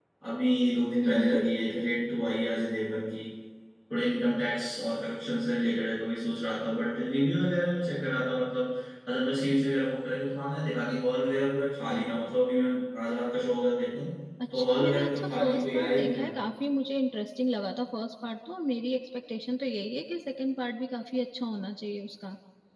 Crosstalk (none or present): present